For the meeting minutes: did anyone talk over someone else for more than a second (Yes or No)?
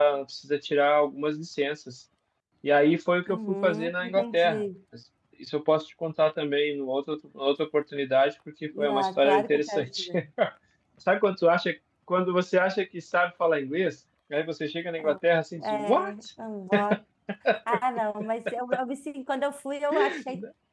Yes